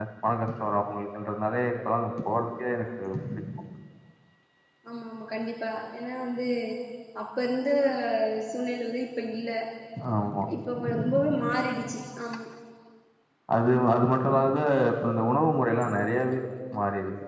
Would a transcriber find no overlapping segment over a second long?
Yes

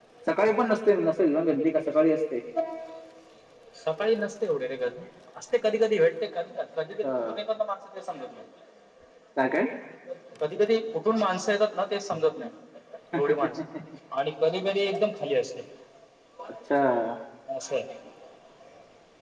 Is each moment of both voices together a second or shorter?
Yes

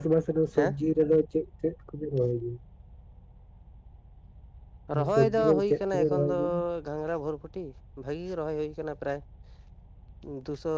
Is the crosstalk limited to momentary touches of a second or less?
No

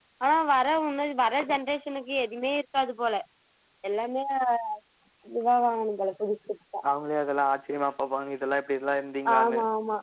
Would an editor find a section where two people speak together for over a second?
No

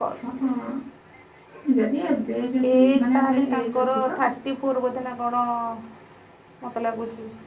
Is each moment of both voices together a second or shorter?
No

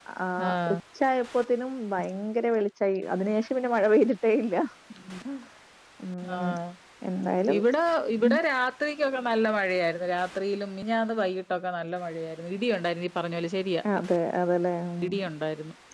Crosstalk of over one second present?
No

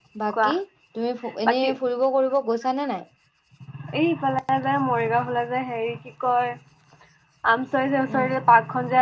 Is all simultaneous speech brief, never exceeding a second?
Yes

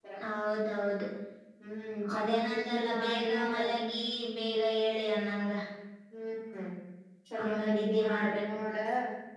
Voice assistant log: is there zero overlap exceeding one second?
No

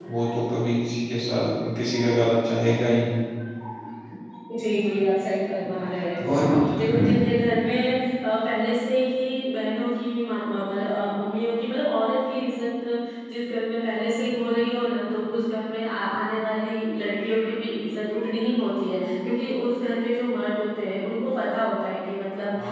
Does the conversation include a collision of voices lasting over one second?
No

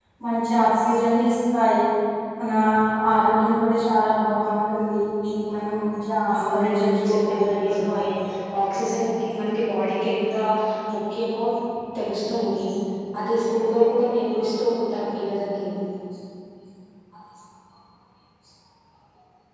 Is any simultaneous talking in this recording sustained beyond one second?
Yes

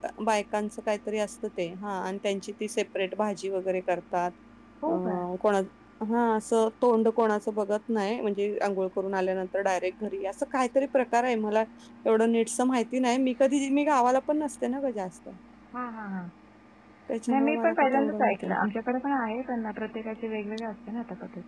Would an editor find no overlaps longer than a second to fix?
No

